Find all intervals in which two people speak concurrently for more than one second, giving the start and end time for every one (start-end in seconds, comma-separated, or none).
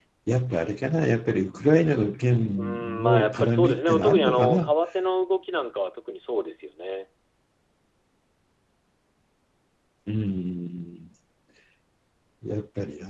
2.6-4.7